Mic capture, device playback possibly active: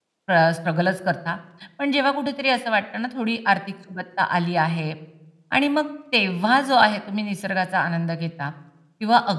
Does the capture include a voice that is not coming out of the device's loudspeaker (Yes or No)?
Yes